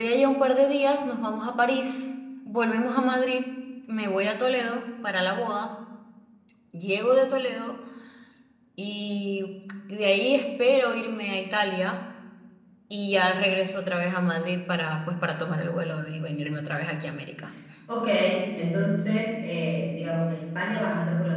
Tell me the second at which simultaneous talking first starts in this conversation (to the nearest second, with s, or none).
none